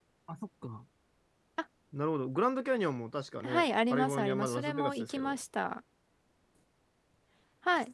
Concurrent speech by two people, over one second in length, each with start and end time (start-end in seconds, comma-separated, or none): 3.4-5.4